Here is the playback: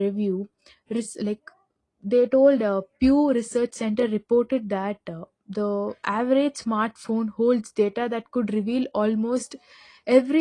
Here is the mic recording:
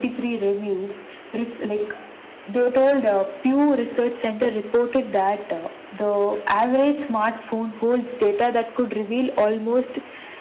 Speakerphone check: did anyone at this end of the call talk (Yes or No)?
No